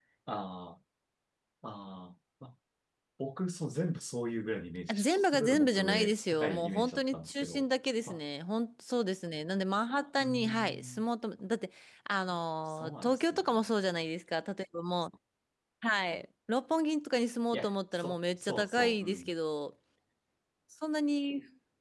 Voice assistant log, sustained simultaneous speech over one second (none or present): present